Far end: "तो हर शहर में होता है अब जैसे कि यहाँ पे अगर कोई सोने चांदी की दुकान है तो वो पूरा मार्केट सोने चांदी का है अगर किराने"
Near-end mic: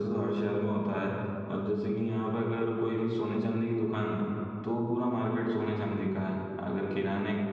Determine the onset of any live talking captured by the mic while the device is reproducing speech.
none

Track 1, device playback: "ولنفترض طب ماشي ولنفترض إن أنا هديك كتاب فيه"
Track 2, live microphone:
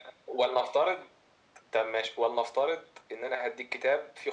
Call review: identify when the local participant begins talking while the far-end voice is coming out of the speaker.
none

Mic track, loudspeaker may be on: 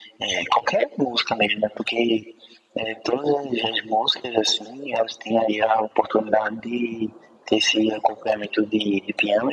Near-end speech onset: none

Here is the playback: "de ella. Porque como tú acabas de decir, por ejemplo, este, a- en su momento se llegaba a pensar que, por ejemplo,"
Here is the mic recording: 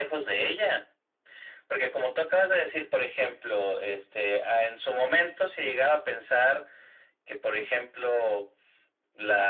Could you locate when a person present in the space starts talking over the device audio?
none

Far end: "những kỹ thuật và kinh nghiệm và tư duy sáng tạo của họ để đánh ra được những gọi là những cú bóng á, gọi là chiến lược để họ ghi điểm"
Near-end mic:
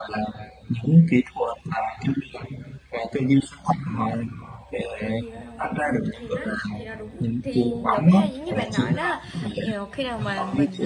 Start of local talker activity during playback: 5.0 s

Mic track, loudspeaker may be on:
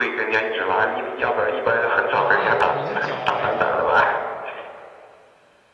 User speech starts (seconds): 2.1 s

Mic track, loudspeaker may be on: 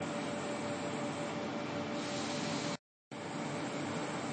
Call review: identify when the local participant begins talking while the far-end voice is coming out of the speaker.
none

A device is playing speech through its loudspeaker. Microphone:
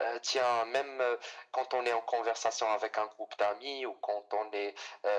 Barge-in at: none

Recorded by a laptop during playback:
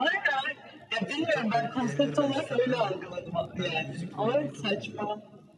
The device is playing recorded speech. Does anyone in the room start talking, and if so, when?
1.2 s

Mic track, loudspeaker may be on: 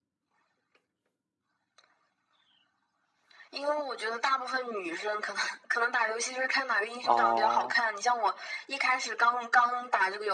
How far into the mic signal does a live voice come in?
7.0 s

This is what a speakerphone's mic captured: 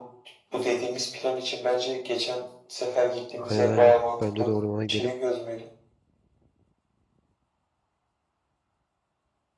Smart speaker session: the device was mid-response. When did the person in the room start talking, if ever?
3.4 s

